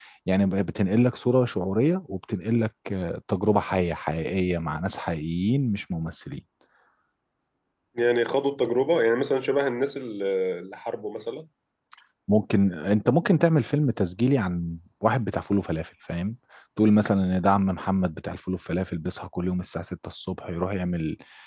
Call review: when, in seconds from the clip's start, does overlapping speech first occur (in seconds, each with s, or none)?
none